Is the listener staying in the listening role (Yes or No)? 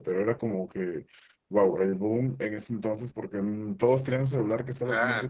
Yes